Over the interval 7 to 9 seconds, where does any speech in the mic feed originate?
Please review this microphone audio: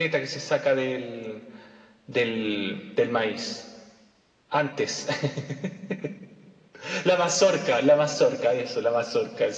echo only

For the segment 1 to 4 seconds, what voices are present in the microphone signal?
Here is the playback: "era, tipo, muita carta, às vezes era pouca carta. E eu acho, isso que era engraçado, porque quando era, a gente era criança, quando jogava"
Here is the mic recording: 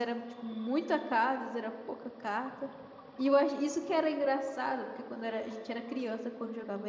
echo only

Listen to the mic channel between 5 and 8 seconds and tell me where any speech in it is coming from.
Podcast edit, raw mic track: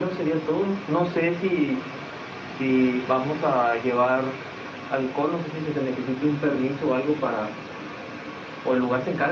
echo only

